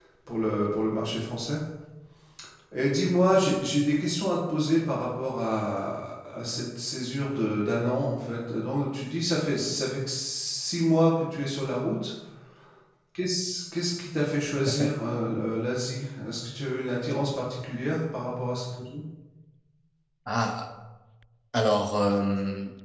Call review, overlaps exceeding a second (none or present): none